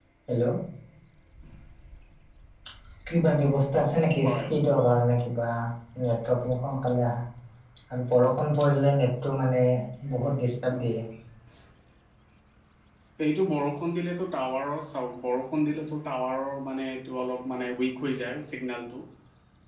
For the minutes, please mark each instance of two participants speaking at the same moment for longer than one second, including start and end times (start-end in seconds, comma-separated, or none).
none